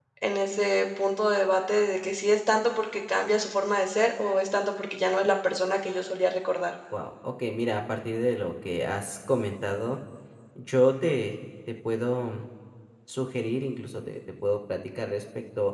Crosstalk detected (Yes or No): No